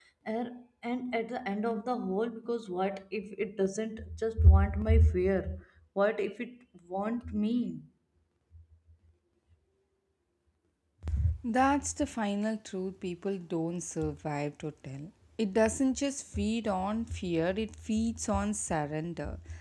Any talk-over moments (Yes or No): No